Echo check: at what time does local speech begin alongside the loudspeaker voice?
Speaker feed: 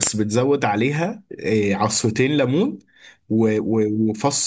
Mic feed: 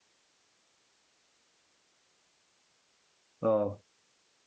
3 s

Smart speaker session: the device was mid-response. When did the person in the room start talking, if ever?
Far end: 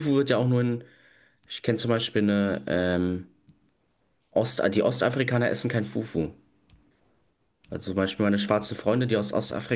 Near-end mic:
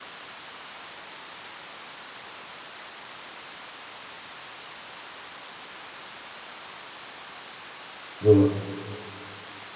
8 s

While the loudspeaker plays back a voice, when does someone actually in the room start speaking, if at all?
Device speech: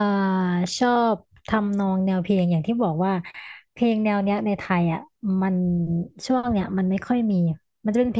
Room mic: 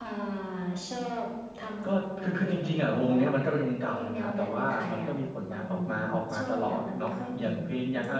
2 s

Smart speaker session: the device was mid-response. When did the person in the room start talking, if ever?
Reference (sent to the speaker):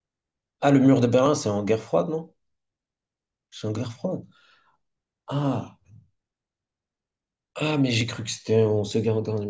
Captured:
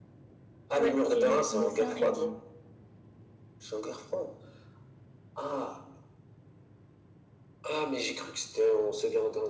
1 s

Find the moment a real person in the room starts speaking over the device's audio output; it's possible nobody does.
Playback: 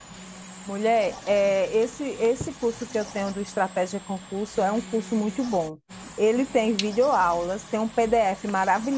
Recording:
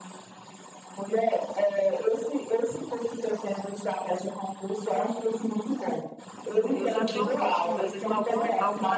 6 s

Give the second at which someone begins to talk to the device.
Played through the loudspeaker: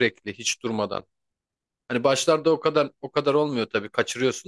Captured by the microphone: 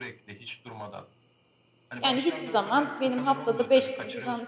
2 s

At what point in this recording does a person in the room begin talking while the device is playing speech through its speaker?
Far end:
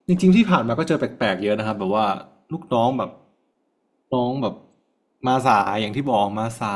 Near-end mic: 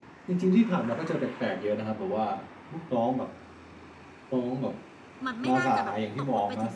5 s

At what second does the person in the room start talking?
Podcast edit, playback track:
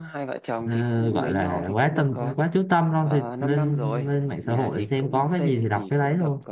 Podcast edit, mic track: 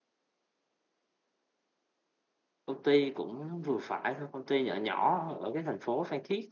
3 s

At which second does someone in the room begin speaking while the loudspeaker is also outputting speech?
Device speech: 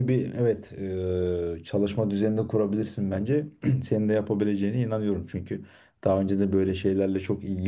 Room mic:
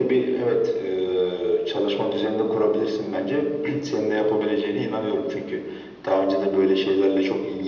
none

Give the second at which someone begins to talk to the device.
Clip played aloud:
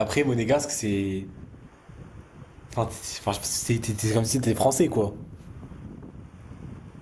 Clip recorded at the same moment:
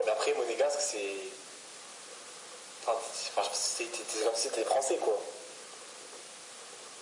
none

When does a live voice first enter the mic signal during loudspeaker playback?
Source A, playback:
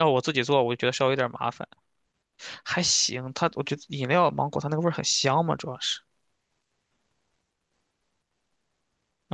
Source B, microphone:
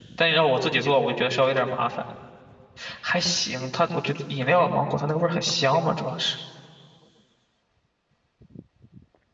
none

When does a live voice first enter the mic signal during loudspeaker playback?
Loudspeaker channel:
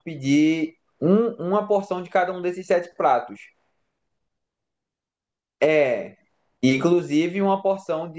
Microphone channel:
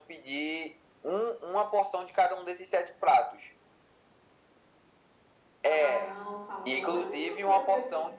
6 s

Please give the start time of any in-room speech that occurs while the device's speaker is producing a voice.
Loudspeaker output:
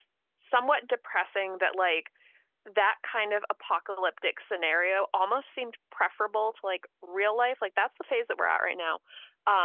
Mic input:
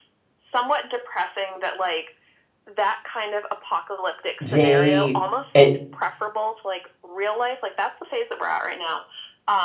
4 s

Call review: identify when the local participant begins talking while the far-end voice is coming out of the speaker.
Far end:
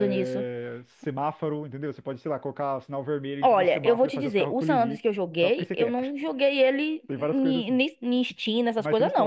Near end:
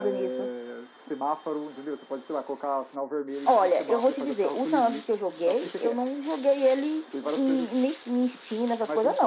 none

